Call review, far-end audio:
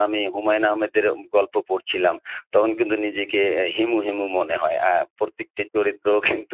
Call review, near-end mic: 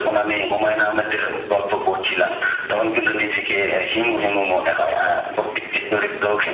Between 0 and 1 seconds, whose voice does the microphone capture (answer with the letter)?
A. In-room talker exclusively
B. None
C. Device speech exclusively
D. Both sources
C